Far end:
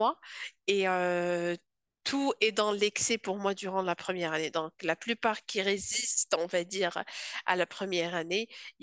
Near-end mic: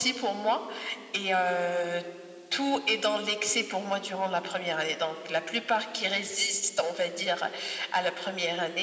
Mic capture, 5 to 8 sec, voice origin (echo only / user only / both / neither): echo only